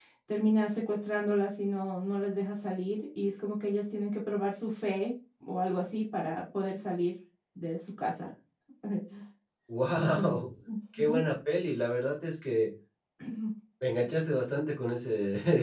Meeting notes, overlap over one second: none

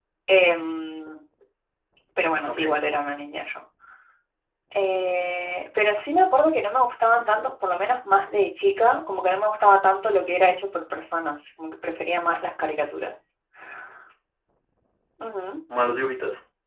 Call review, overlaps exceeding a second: none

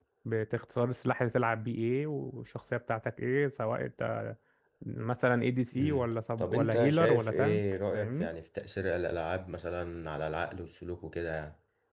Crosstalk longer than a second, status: present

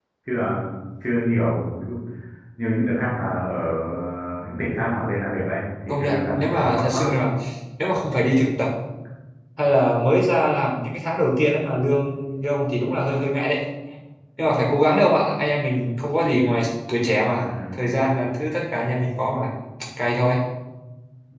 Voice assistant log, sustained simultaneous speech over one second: present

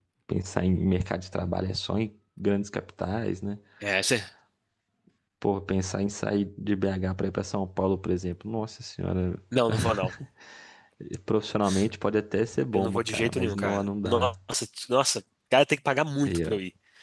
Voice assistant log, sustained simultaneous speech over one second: present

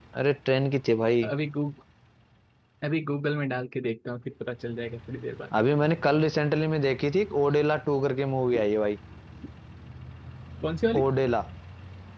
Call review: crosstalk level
none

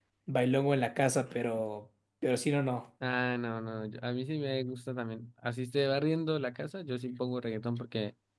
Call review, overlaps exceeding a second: none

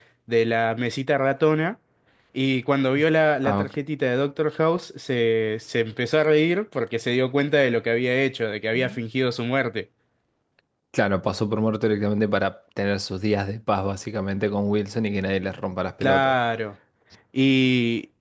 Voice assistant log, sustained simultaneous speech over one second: none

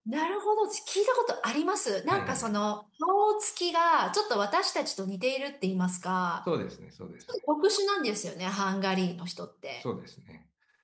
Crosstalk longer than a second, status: none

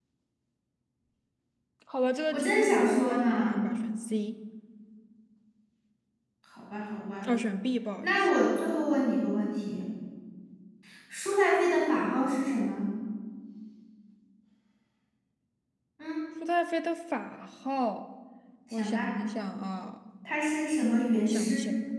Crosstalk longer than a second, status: present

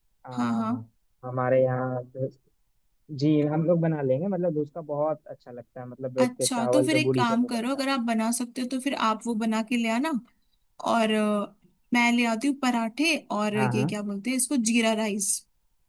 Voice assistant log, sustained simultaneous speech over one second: present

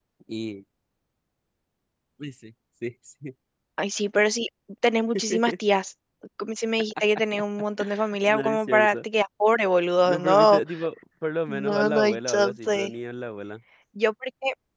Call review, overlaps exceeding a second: present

